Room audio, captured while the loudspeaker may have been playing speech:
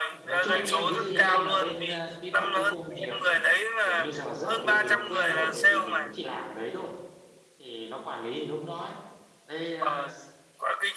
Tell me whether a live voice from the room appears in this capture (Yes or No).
Yes